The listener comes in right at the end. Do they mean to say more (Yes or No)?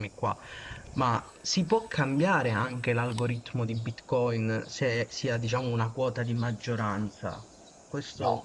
No